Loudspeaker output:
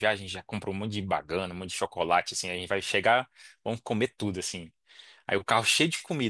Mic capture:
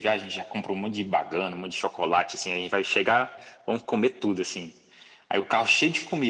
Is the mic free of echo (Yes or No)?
No